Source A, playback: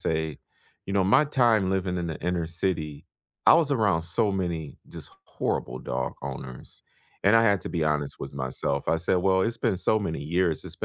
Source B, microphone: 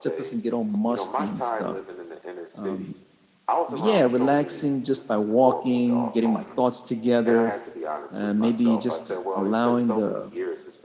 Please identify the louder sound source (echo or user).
user